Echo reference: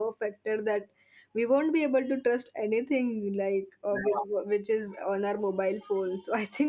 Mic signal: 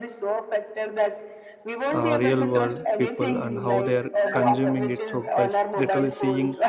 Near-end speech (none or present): present